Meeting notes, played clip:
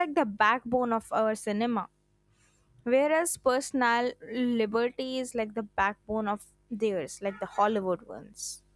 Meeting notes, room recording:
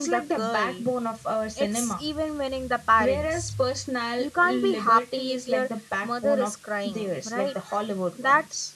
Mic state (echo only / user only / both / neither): both